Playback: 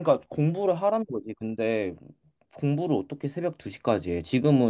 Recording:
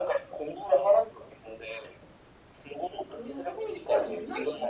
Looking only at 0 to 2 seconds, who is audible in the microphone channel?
echo only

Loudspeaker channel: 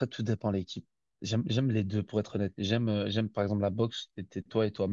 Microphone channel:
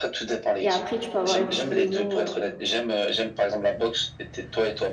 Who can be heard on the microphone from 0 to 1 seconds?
both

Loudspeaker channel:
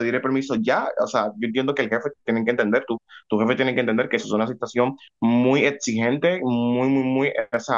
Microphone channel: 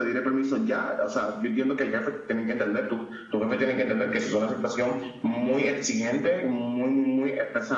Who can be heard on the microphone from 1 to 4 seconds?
echo only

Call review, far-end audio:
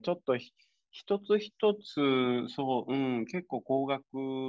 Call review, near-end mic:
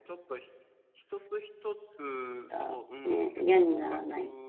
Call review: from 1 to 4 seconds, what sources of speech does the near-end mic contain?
both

